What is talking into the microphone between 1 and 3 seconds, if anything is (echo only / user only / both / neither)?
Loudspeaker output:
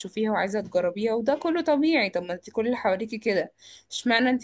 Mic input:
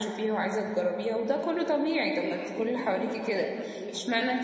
both